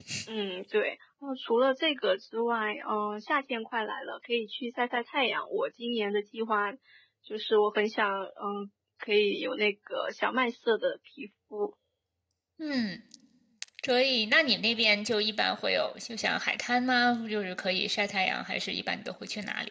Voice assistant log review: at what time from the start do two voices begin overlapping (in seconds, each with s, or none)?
none